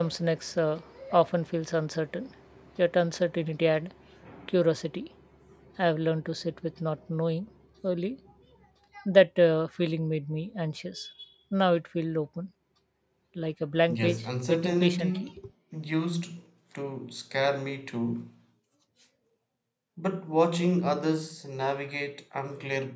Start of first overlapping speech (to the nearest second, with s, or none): 14 s